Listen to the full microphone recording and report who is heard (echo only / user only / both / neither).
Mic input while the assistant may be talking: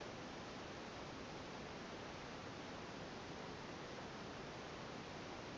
neither